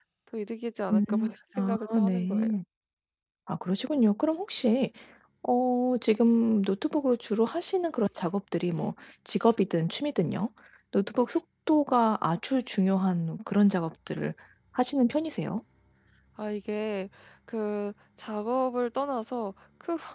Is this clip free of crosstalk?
No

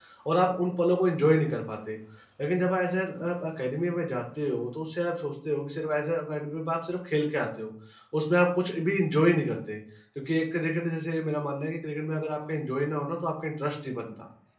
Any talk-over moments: No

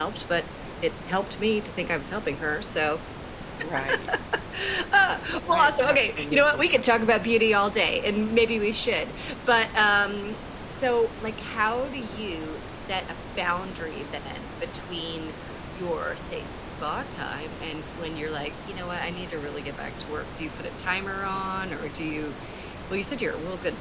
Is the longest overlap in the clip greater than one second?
Yes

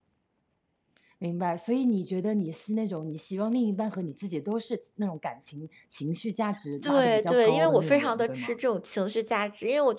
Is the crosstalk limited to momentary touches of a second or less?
No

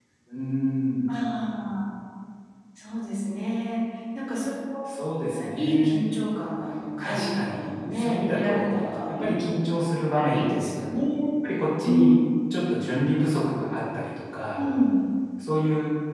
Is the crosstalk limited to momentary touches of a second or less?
No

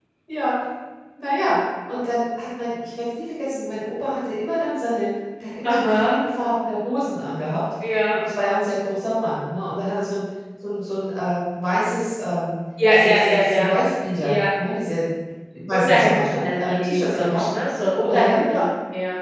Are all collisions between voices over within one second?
No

